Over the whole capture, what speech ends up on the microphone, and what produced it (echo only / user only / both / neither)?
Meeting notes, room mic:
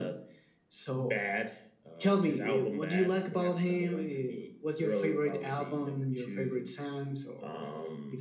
echo only